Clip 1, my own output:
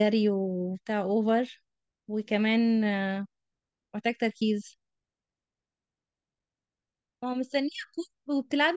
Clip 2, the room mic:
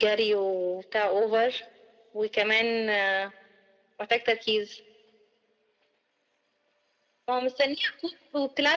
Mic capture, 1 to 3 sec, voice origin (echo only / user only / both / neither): echo only